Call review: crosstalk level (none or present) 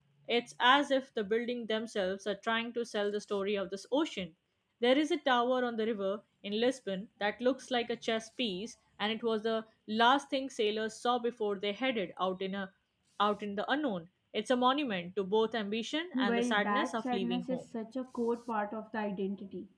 present